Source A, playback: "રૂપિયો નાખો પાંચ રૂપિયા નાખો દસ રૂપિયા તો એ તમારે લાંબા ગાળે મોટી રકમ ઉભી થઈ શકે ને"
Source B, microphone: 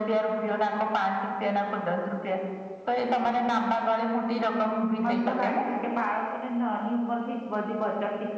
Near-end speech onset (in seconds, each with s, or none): 5.0 s